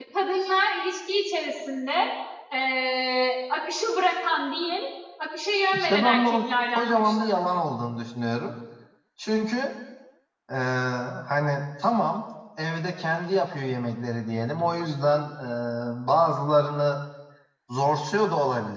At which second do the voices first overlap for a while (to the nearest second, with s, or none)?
6 s